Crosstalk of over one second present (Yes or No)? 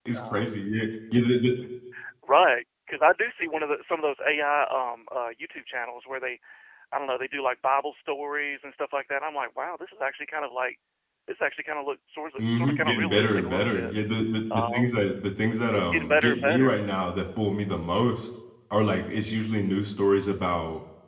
Yes